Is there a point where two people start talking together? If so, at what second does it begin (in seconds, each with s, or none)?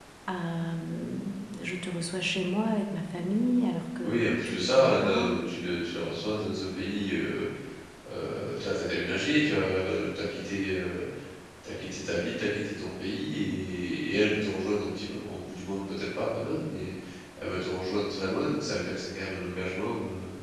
4.0 s